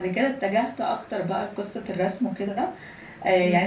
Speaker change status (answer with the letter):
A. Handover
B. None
B